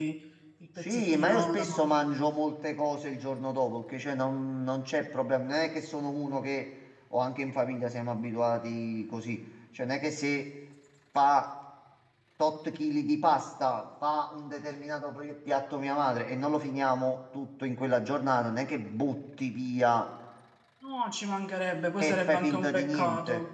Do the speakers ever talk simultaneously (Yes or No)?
Yes